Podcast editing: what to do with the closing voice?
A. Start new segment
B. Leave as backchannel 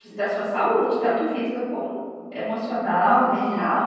A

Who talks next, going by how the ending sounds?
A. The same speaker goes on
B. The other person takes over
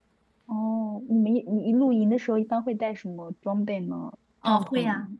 B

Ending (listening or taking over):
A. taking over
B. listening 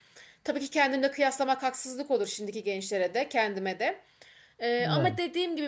B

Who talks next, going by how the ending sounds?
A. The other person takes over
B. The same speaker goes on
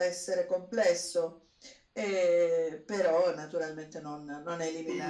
A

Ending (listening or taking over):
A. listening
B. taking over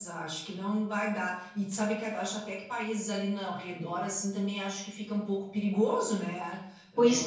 B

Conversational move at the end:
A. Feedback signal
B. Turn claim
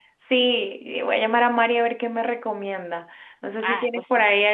A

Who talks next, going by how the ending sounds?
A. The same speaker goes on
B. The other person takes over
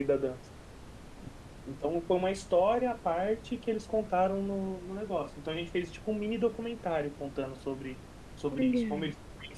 A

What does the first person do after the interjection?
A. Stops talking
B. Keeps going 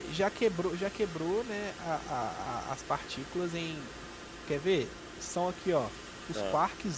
B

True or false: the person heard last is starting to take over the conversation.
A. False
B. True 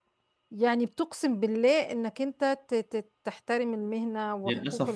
B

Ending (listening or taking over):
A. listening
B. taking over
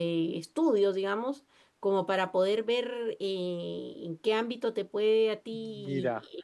B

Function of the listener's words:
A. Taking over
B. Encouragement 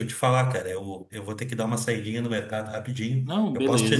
B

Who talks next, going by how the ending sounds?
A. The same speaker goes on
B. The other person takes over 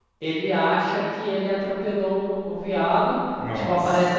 A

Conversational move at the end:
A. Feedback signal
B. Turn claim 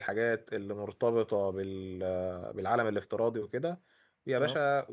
A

